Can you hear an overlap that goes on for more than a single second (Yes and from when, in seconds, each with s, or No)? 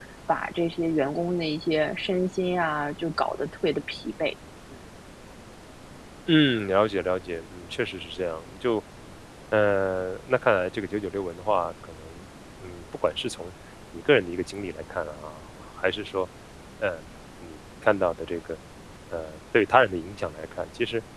No